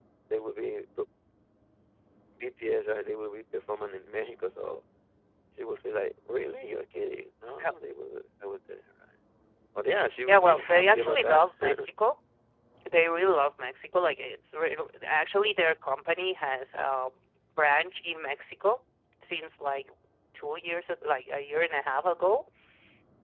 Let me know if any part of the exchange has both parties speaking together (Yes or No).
Yes